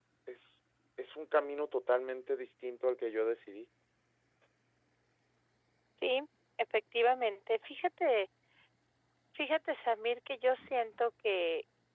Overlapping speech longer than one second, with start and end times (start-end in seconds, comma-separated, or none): none